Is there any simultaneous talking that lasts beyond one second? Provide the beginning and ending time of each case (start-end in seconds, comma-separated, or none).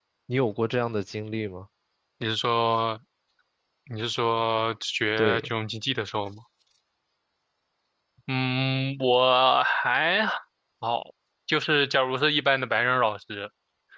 none